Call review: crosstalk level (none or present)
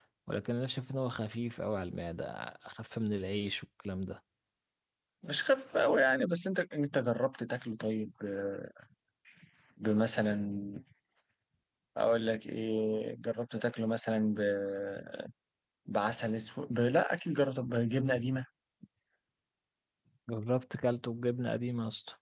none